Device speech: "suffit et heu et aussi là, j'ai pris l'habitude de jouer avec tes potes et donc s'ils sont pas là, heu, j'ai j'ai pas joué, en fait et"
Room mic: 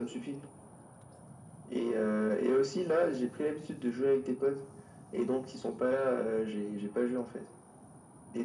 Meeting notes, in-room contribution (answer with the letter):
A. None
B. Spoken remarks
A